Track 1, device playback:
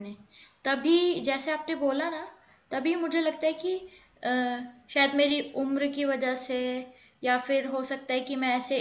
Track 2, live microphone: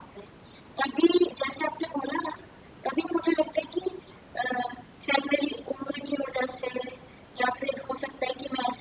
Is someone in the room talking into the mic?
No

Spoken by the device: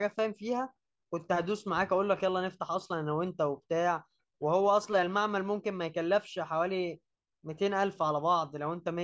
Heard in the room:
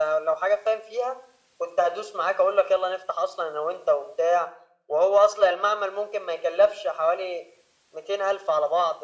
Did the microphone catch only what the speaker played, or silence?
Yes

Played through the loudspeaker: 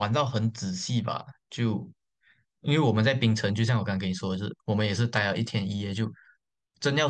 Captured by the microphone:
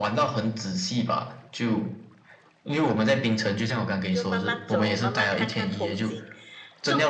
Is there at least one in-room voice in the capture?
Yes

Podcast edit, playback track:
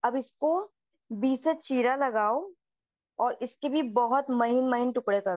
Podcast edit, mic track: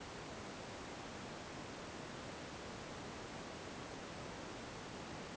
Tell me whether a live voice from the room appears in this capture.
No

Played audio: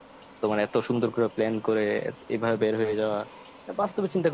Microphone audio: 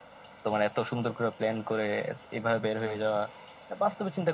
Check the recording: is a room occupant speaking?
No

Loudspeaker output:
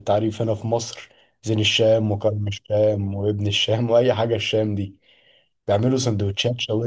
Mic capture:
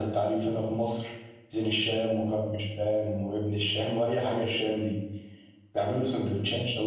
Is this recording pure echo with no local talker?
Yes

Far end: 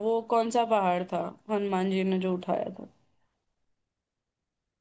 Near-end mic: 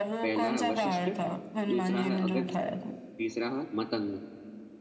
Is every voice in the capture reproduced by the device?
No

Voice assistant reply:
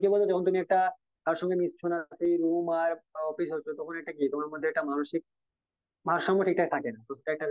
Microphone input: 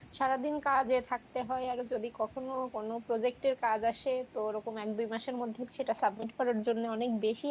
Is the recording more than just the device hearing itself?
Yes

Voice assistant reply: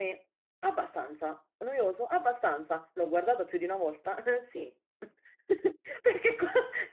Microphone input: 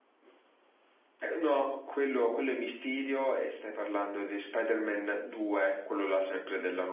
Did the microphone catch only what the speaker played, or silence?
No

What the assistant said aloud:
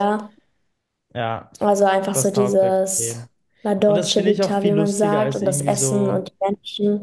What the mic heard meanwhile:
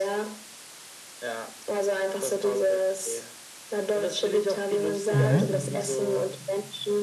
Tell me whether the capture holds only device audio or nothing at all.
No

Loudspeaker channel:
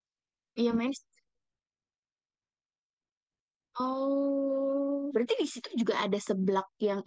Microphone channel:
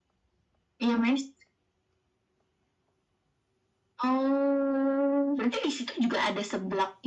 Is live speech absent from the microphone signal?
Yes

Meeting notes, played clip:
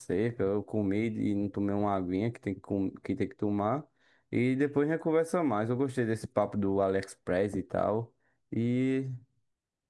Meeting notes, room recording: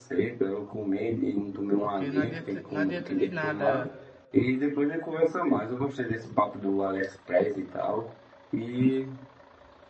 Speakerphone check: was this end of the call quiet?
No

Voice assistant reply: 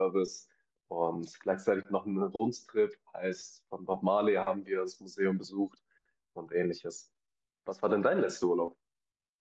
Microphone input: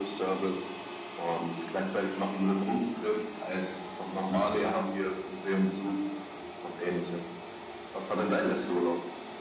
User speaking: No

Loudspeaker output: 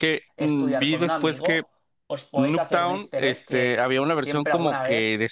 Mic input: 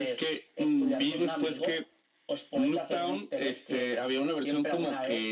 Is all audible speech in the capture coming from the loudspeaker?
Yes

